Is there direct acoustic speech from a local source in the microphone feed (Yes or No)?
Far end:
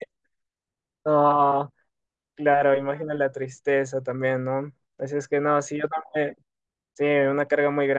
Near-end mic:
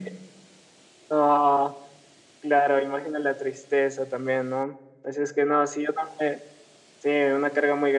No